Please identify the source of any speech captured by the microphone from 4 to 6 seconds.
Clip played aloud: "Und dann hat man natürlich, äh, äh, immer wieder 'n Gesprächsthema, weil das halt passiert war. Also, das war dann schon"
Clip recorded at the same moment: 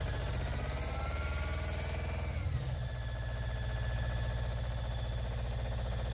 neither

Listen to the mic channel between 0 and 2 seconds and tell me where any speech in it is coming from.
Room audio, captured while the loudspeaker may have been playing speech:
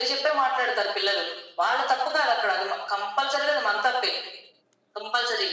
echo only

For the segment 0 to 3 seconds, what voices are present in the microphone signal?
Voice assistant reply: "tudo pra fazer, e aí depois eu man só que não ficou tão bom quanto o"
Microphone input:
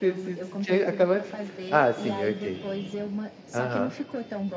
both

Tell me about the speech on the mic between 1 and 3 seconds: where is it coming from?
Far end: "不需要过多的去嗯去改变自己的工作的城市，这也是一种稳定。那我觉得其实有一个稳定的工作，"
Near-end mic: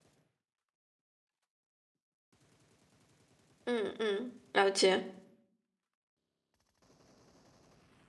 neither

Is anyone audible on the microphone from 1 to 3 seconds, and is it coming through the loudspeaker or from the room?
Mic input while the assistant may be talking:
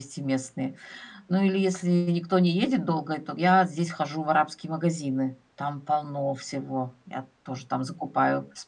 echo only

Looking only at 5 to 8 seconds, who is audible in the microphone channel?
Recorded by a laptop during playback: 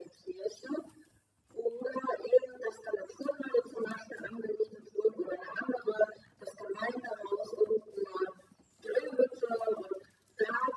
echo only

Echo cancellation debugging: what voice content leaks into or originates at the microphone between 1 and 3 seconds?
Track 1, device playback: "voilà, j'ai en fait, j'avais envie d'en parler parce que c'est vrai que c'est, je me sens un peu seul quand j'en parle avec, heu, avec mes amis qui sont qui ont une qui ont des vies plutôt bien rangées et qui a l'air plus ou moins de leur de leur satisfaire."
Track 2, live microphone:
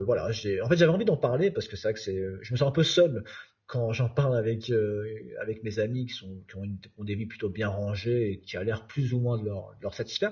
echo only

